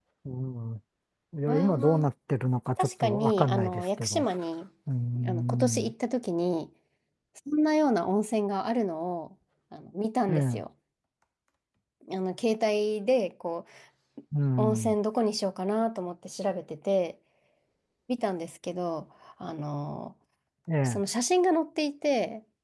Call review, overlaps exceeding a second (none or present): present